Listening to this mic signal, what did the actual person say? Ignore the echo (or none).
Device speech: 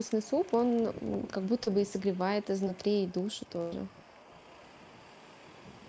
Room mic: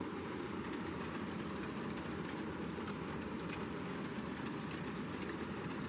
none